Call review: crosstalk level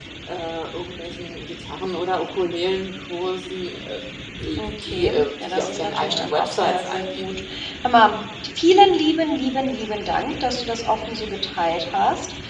present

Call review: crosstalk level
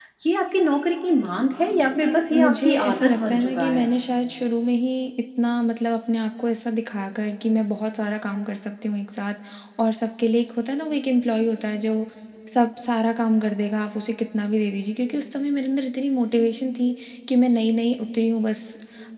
present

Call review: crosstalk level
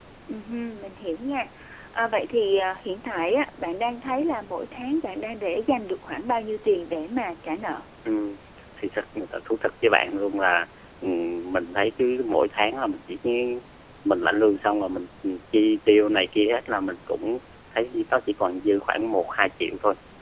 none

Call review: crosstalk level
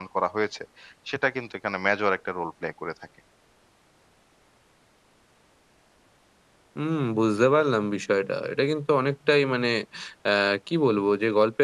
none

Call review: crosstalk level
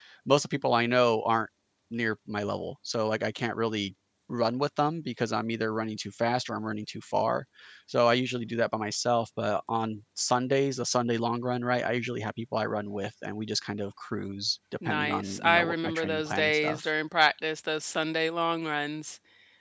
present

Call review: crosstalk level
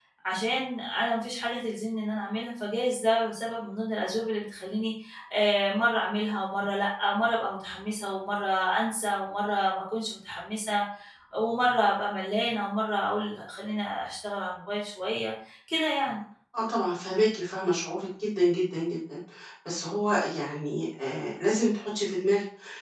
none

